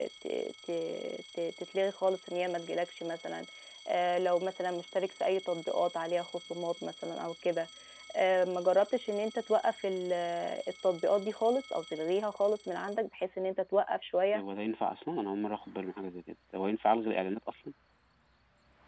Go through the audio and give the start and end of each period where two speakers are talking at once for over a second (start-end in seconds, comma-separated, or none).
none